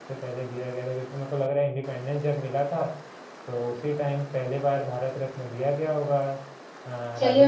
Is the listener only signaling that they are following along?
No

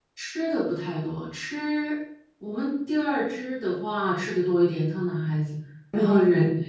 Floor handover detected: No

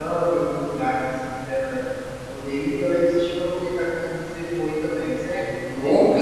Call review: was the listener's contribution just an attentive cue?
No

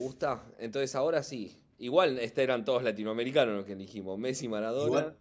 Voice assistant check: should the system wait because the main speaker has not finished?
No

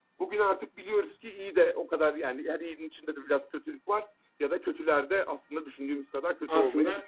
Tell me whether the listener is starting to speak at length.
Yes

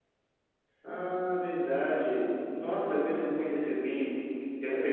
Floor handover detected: No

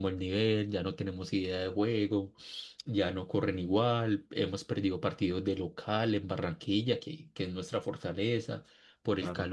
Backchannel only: Yes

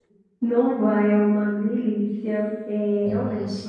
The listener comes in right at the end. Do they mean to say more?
No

